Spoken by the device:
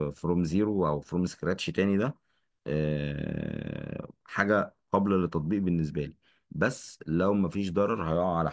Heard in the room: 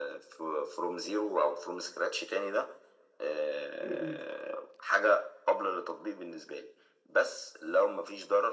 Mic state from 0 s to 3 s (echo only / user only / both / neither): echo only